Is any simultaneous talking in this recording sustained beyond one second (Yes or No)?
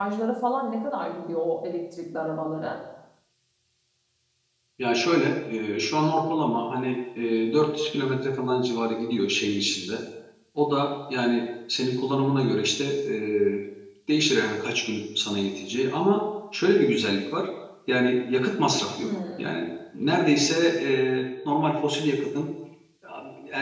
No